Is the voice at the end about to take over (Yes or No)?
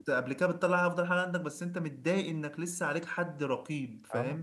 Yes